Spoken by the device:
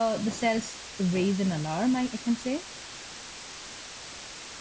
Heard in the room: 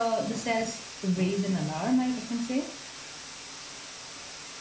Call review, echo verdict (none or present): present